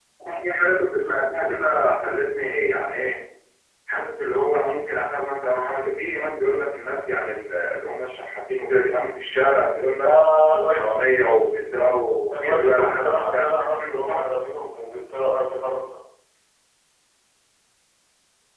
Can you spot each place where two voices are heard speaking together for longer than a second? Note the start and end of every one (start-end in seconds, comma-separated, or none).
12.3-14.2